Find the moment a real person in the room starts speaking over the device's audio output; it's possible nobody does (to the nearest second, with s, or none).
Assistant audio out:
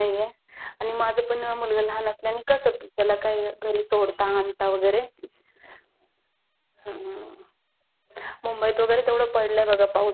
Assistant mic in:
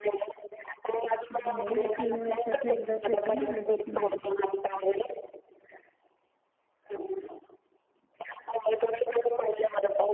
1 s